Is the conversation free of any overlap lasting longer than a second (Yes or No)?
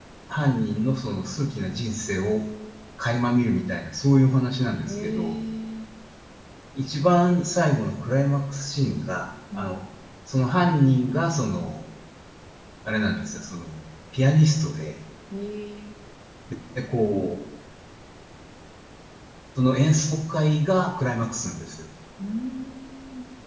Yes